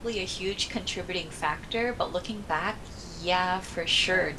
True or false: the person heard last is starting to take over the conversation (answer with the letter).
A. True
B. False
B